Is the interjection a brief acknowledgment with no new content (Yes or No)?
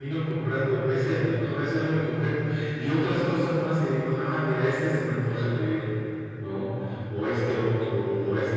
Yes